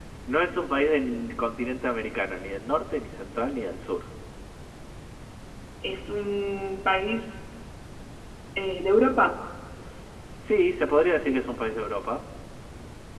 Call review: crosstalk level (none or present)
none